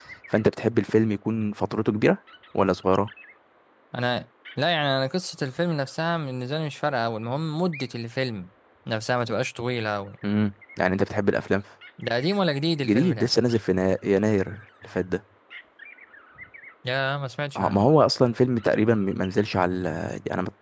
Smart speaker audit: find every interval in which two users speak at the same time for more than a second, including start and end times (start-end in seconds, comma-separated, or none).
none